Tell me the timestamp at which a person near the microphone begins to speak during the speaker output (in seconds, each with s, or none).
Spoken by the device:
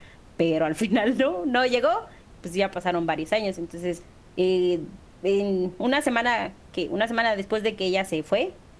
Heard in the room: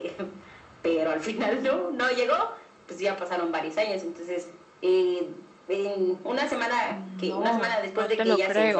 6.9 s